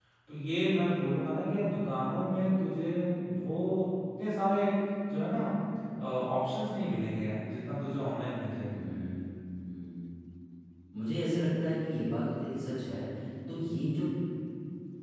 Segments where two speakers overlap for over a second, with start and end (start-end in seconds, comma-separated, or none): none